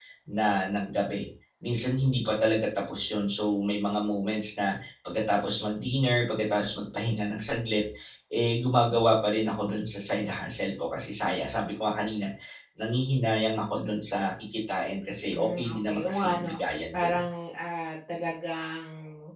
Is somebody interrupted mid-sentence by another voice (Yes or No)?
Yes